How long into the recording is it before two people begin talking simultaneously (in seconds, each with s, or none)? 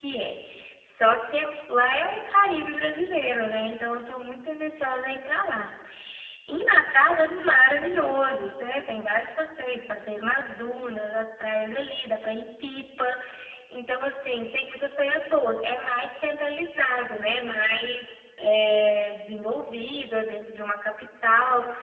none